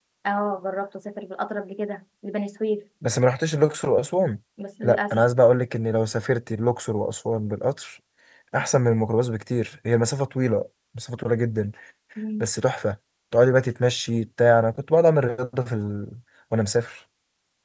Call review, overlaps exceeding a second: none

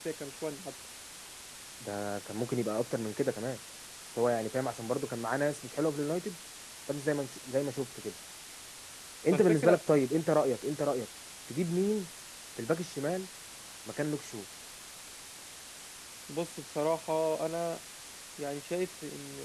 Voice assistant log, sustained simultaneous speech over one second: none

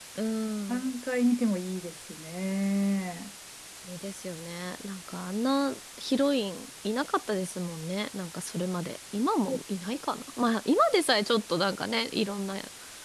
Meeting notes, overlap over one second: none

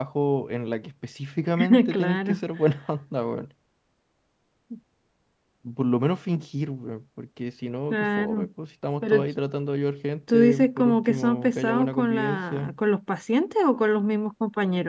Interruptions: present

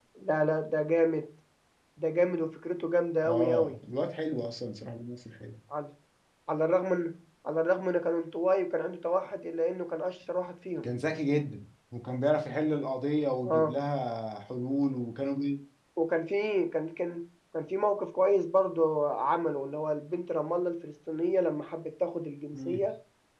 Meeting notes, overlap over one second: none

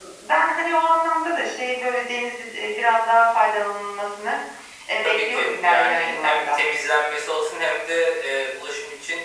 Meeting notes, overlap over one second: present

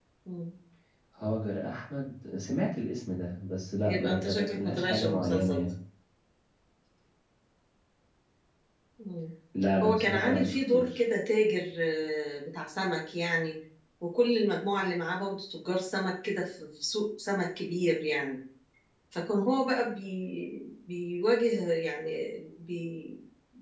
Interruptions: present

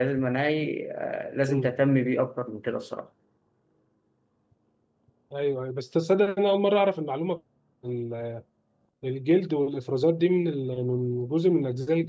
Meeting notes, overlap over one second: none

